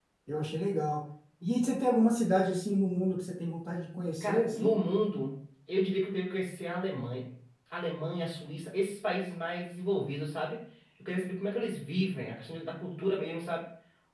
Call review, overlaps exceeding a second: none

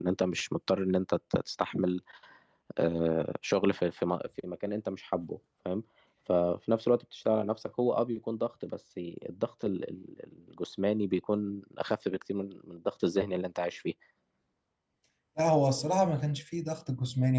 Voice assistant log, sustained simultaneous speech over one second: none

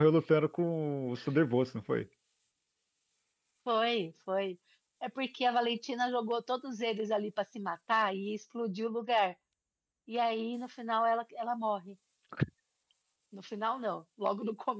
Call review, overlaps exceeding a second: none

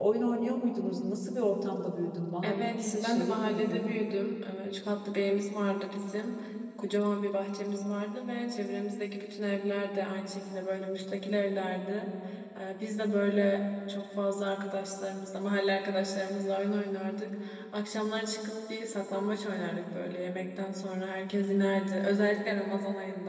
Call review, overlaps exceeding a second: present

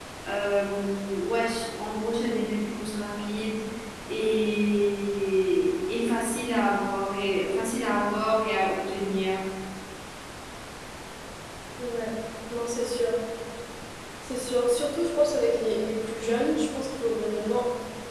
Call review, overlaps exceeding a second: none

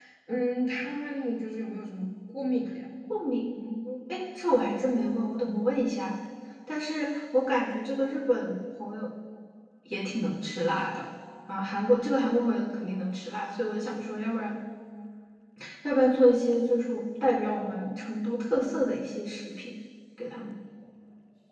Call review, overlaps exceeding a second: none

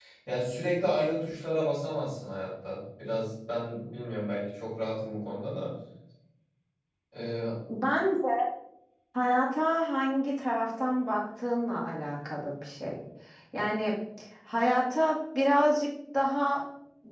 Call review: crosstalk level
none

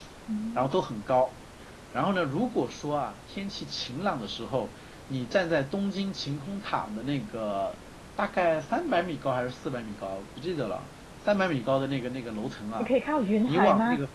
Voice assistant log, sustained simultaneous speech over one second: none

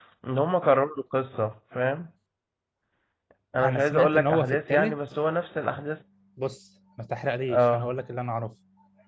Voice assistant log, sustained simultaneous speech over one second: present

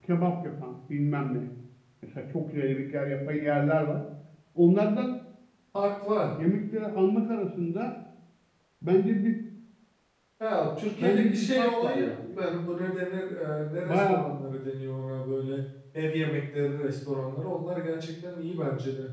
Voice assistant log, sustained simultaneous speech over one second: present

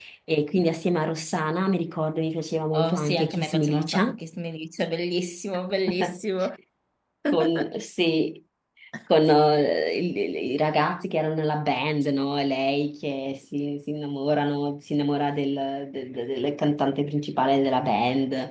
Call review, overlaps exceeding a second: present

